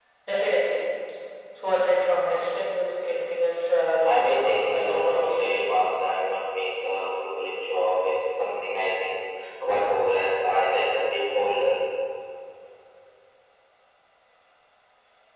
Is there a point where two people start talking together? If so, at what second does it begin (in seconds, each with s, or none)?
4.0 s